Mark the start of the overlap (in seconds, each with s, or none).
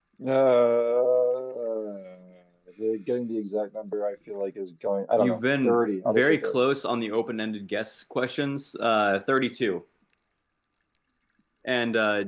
5.2 s